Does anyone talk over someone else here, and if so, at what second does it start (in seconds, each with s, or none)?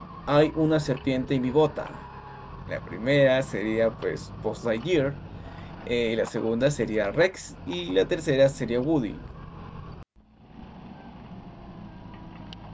none